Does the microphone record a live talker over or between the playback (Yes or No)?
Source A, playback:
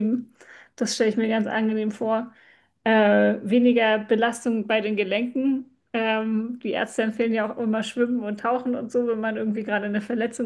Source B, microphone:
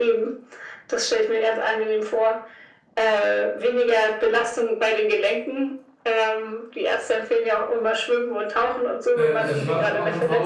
Yes